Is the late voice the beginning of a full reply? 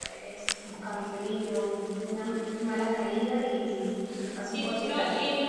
Yes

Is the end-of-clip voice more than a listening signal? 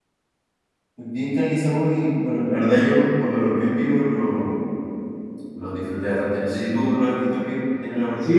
Yes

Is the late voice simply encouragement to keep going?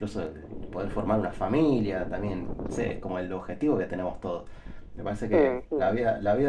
Yes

